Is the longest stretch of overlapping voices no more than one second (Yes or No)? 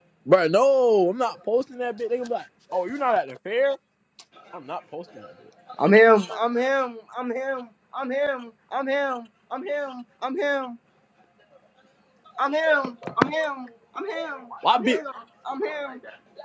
Yes